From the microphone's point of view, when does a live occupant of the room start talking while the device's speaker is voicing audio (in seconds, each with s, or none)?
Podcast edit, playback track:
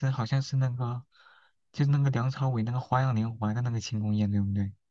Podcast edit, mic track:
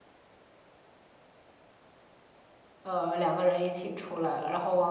2.8 s